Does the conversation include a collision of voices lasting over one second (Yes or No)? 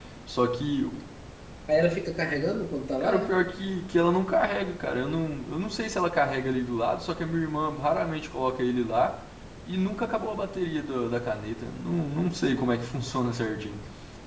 No